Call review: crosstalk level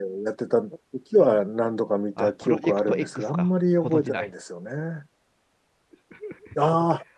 present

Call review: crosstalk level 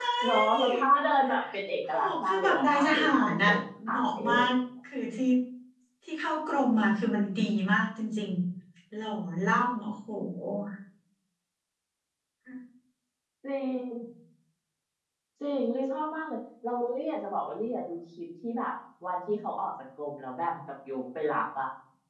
present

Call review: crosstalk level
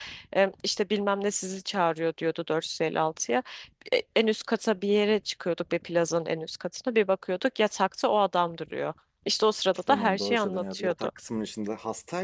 present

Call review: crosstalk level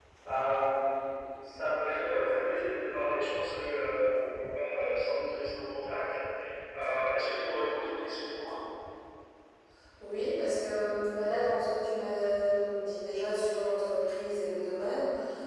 none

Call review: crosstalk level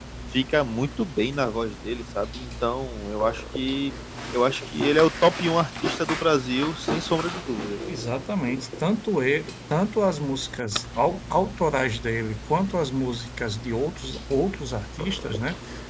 none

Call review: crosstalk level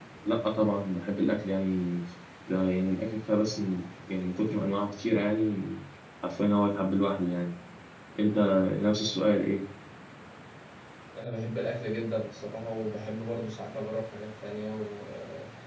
none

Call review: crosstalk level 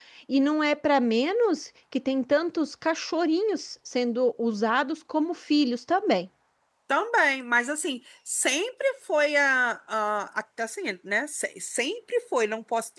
none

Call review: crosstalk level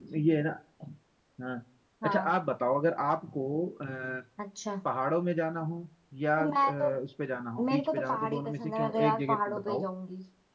present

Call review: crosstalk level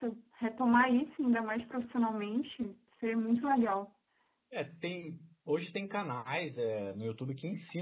none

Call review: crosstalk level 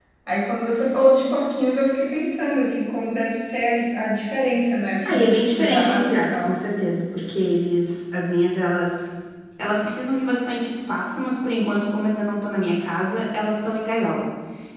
present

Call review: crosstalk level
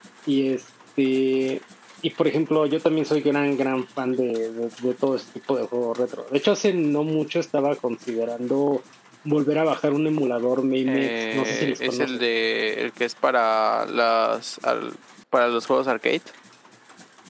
present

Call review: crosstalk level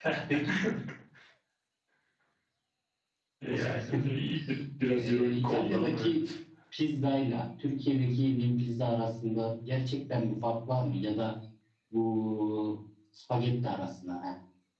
present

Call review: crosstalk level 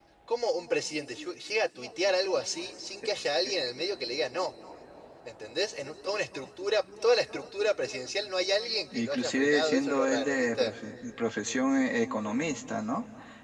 present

